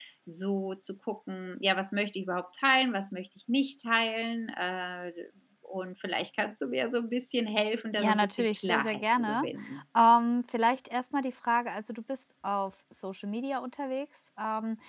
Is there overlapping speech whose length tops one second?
Yes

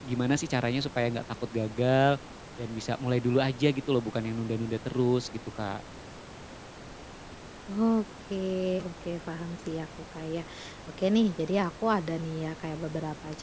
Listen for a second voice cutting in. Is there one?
No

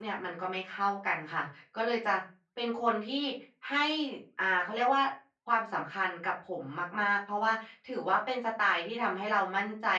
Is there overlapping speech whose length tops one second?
No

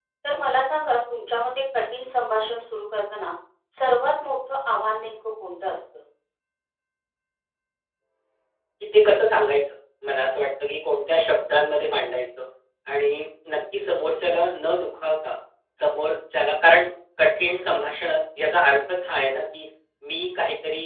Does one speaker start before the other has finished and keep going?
No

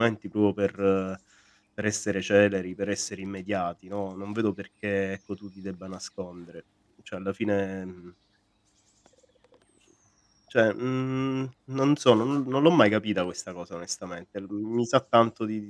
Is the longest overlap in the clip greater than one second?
No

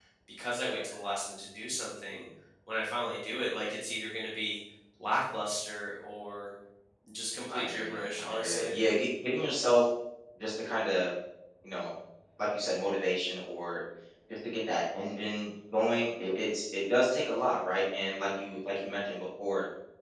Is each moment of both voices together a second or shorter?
No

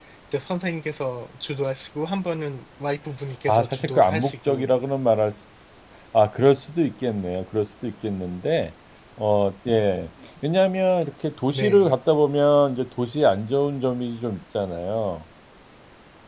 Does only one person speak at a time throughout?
No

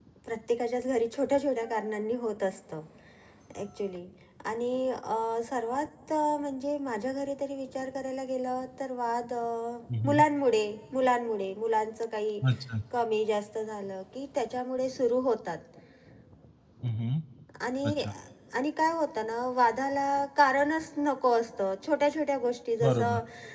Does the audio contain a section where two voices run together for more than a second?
No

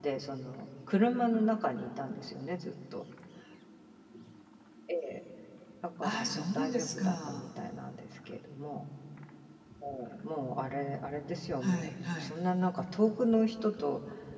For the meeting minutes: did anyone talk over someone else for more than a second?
Yes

